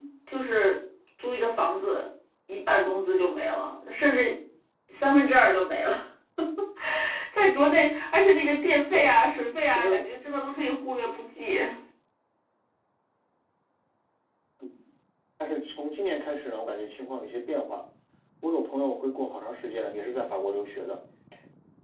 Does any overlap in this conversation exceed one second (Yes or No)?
No